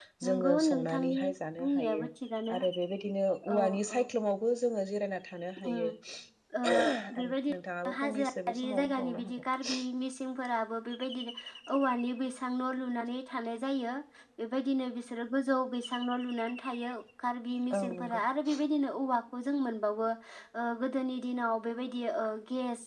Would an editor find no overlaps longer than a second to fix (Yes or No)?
No